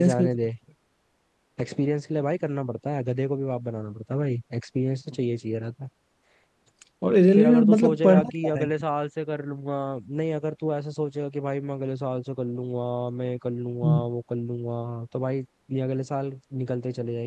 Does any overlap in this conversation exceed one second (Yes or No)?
Yes